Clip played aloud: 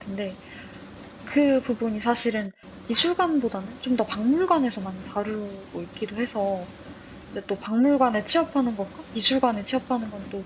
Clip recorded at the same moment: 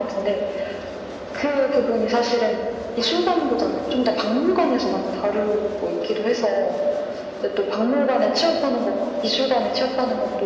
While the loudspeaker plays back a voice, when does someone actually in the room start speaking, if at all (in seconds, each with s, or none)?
none